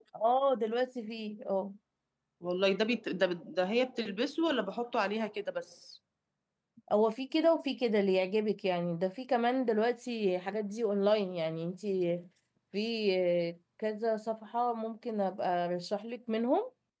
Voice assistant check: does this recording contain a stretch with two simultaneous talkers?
No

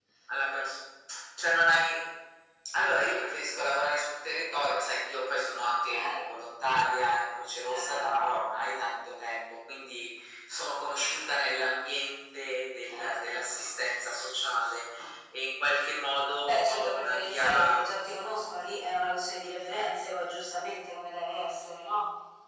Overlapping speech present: Yes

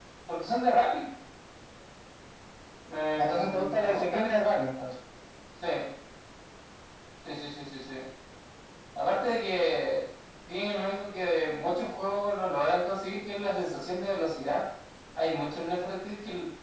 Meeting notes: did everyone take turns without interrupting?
No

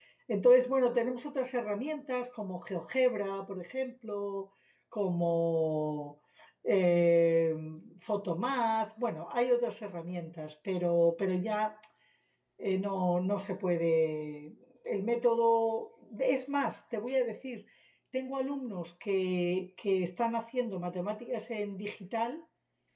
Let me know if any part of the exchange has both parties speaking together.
No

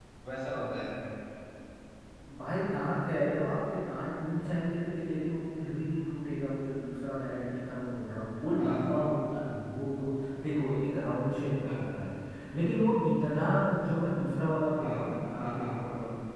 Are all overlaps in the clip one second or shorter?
Yes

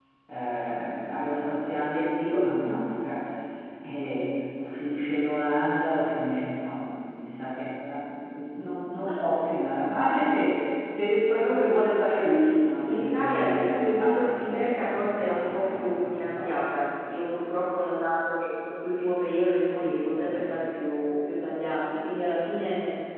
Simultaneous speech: Yes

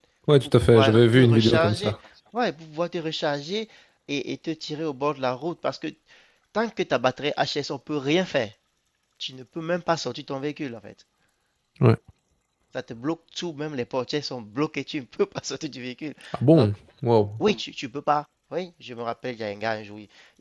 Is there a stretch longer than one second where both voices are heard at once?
Yes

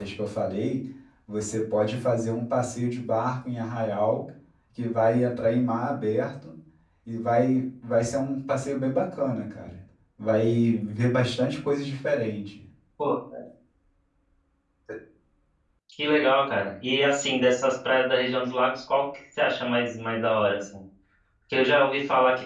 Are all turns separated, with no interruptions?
Yes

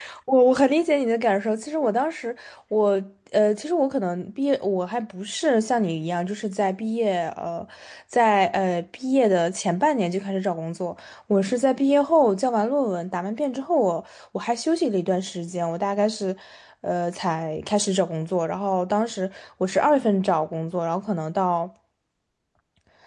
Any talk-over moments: No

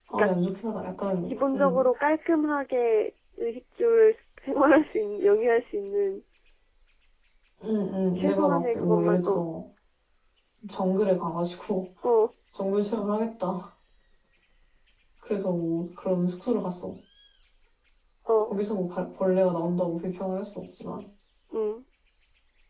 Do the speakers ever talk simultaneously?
Yes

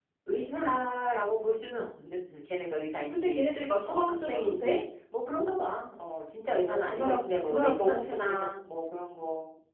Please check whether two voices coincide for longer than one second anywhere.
Yes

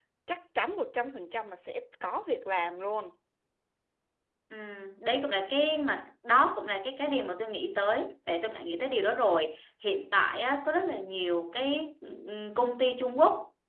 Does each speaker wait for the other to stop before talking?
Yes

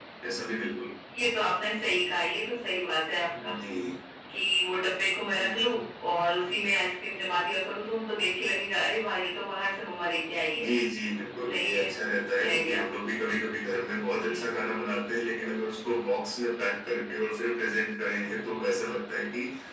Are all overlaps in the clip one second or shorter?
Yes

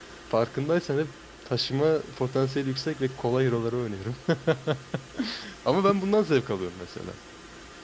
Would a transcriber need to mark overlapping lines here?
No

